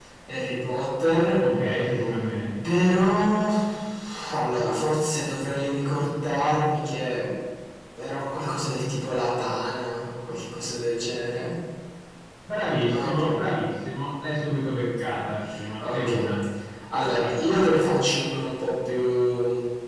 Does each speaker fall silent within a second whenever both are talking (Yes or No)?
Yes